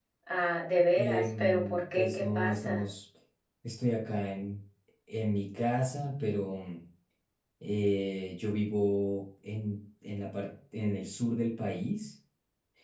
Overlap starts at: 0.9 s

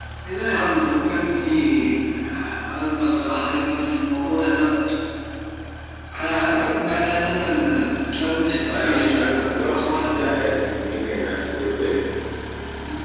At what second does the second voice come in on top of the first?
8.7 s

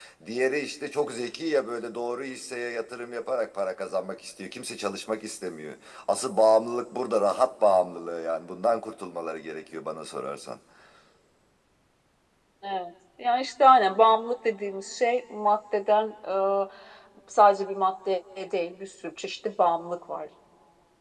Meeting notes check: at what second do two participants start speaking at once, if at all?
none

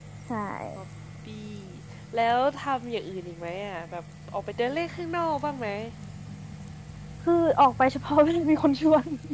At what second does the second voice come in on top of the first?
none

